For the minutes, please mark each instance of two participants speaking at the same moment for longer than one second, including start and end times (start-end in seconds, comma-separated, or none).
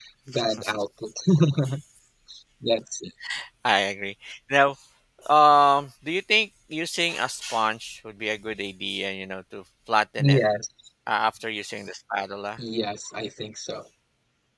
none